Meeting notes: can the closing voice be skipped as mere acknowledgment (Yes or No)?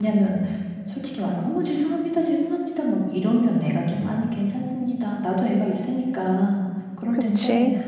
Yes